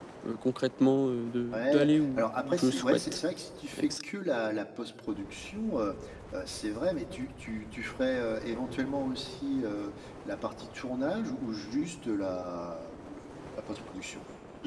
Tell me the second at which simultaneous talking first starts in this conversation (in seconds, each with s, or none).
1.5 s